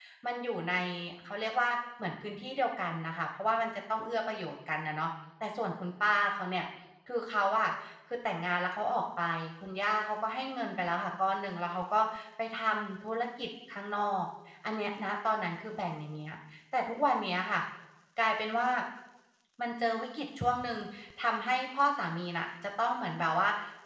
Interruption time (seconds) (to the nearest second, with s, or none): none